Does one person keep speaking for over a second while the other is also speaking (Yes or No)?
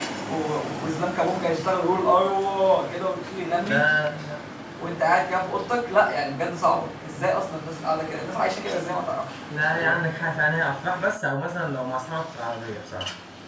No